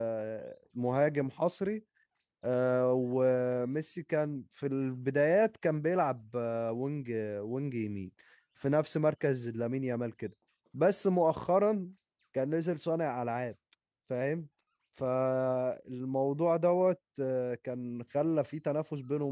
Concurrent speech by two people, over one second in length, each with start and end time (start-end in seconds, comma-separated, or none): none